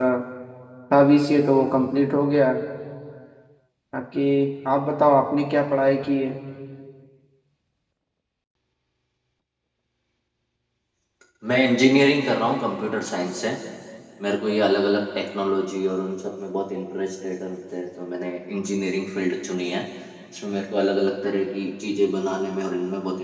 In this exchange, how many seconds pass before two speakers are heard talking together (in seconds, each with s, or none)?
none